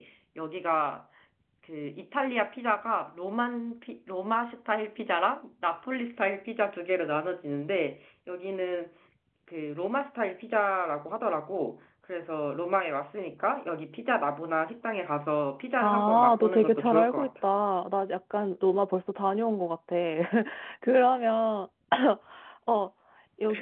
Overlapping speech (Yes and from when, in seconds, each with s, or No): Yes, from 15.8 s